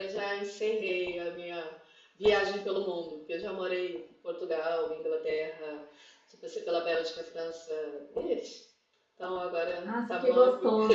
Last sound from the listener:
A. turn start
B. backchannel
A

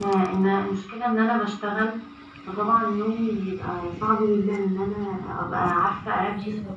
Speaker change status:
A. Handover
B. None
B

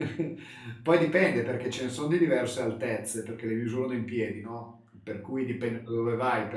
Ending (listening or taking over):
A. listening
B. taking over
A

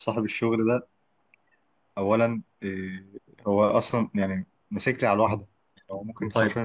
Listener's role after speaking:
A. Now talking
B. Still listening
A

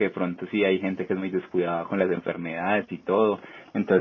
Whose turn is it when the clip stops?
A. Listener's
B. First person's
B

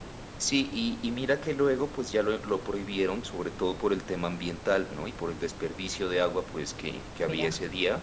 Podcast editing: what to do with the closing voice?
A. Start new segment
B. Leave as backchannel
B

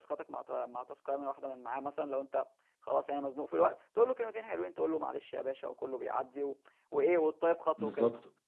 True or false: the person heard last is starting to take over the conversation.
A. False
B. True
B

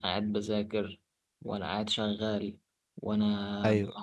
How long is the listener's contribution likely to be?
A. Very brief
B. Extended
A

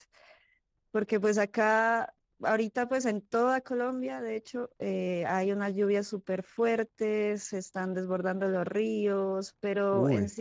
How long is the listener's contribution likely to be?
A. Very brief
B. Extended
A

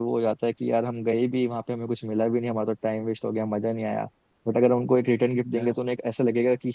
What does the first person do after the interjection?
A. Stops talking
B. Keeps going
B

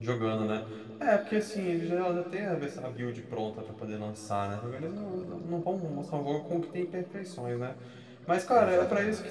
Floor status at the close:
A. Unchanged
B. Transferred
A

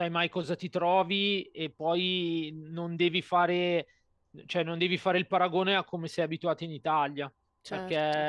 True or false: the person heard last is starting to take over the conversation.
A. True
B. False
B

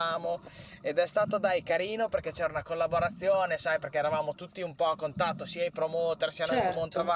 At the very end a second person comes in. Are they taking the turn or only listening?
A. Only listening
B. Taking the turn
A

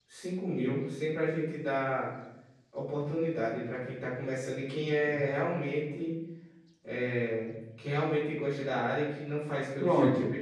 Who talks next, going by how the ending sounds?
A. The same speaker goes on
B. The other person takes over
B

